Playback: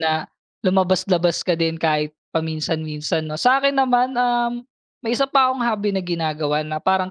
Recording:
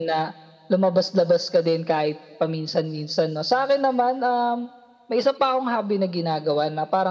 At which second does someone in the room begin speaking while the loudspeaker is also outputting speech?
none

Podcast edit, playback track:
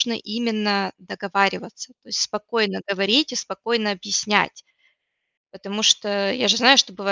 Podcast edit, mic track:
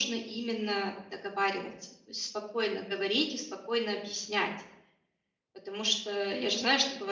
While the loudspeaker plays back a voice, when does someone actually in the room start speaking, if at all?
none

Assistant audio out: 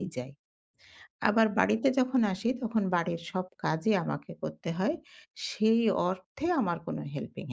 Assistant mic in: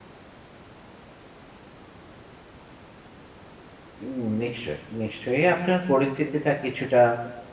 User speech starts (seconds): 4.0 s

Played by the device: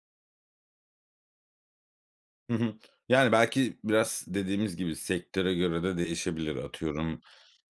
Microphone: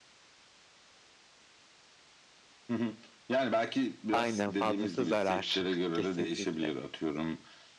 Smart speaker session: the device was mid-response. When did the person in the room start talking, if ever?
4.1 s

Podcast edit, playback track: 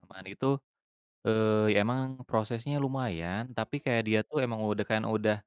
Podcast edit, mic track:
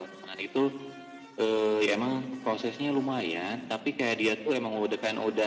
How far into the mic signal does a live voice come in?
none

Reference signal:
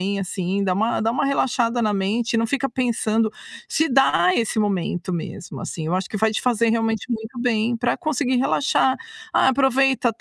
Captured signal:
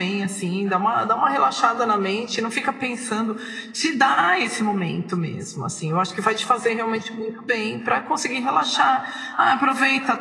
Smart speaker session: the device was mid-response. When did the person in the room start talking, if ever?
none

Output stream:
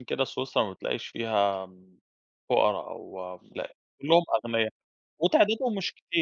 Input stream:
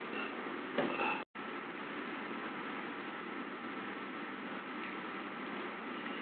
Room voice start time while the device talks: none

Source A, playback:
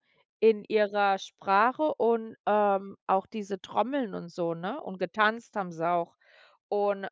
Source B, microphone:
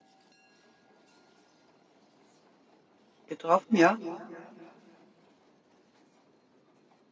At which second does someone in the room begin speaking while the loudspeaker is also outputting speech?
3.3 s

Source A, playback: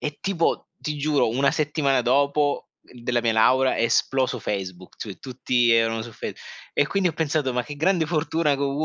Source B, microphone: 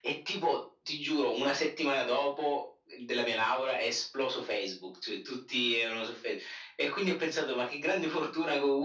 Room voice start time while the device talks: none

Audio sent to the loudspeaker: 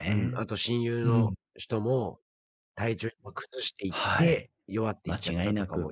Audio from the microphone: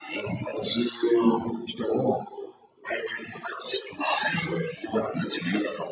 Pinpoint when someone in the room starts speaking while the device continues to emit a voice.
none

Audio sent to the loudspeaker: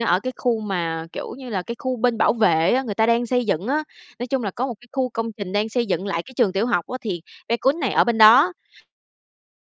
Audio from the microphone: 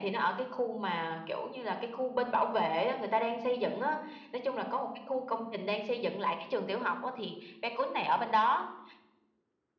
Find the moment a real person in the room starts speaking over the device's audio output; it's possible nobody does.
none

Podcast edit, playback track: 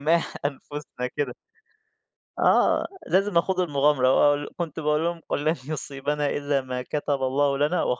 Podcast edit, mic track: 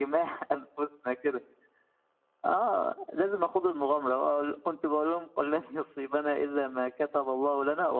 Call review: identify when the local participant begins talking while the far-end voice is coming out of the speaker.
none

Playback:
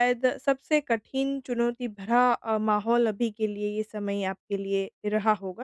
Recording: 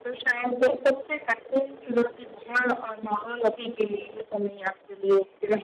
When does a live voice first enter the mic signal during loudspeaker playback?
none

